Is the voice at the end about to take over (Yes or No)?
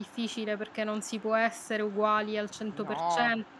No